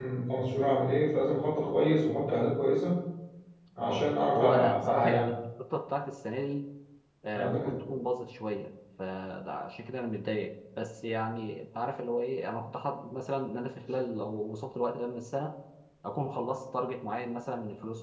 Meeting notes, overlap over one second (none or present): present